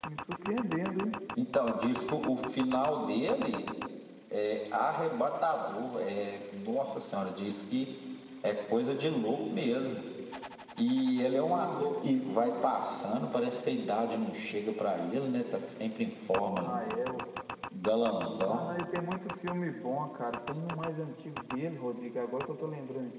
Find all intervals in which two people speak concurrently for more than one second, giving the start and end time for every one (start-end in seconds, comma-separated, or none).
none